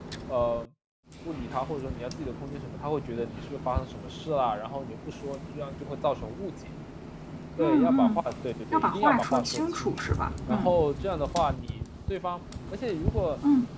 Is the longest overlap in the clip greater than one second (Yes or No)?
Yes